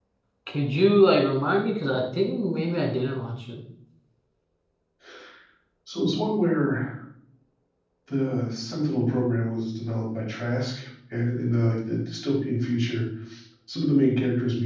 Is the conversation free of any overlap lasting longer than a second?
Yes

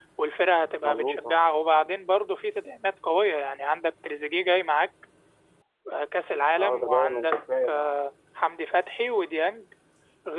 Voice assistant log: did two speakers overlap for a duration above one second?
Yes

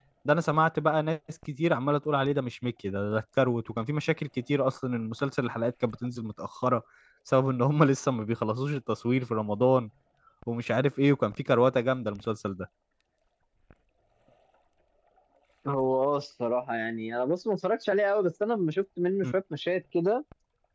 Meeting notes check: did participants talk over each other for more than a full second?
No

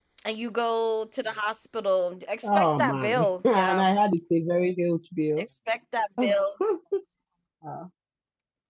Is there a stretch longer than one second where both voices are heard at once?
Yes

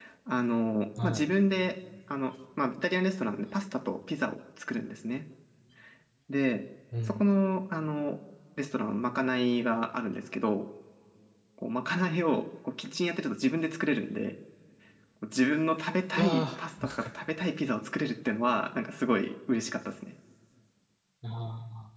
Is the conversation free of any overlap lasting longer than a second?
Yes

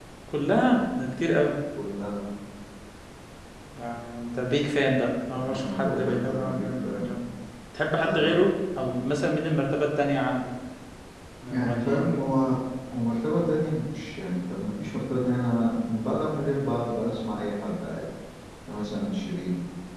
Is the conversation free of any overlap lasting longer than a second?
No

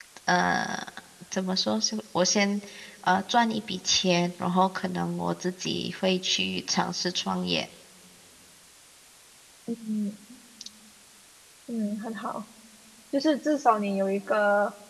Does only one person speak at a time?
Yes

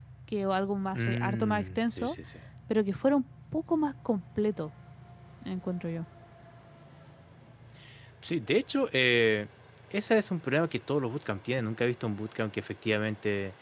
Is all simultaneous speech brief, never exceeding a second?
No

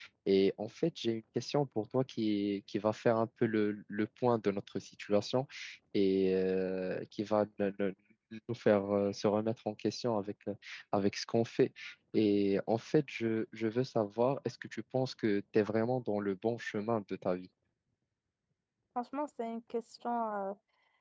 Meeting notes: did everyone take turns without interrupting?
Yes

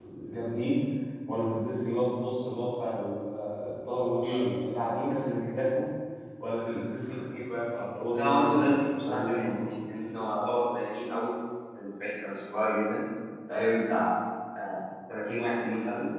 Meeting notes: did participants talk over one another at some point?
Yes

